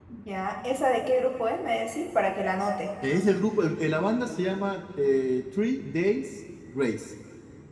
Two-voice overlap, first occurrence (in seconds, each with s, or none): none